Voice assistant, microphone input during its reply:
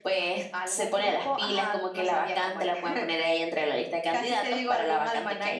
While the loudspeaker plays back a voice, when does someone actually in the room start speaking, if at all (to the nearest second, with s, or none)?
none